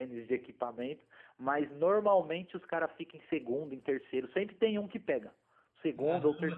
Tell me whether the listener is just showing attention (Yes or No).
No